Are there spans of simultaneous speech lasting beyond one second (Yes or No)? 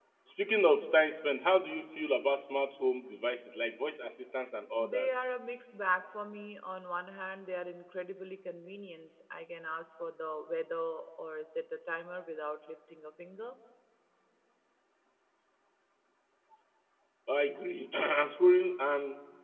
No